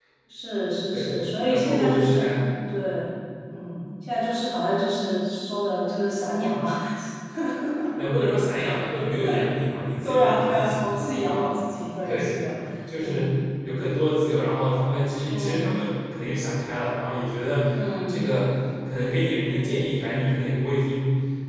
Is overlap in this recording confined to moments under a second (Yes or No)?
No